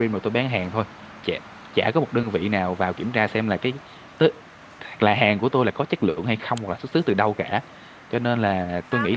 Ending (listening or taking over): listening